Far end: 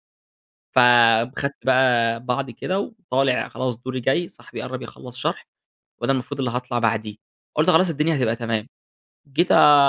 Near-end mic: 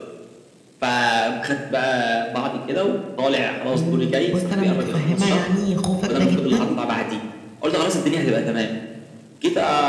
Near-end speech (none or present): present